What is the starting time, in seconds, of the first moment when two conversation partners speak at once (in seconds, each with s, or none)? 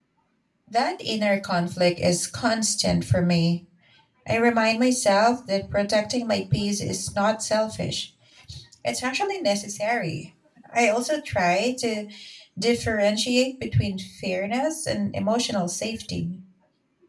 none